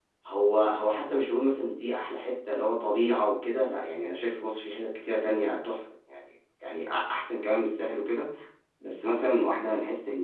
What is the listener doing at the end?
listening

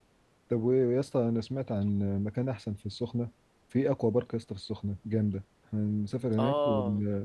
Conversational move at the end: listening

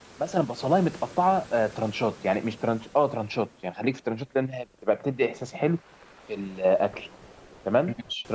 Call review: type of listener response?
listening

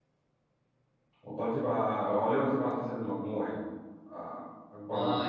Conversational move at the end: taking over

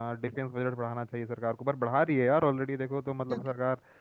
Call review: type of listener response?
listening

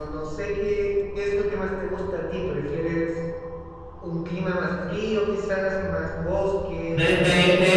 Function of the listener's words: taking over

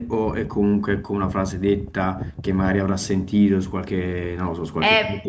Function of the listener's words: taking over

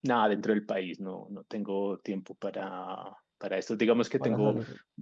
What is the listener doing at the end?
listening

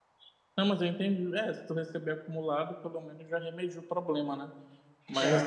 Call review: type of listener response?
listening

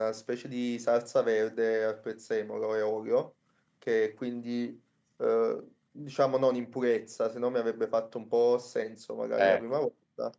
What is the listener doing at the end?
listening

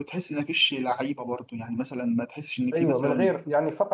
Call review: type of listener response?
taking over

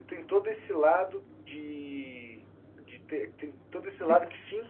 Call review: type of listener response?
listening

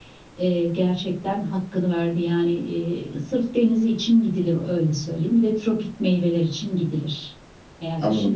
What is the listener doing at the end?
taking over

